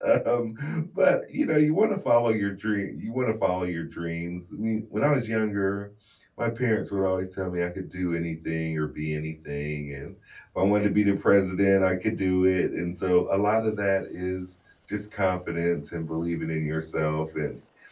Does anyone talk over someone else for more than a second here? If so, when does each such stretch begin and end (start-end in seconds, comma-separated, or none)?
none